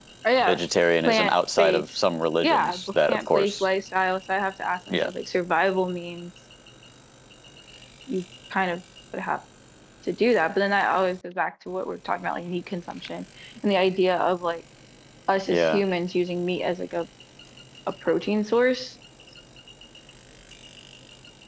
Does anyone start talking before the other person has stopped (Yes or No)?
Yes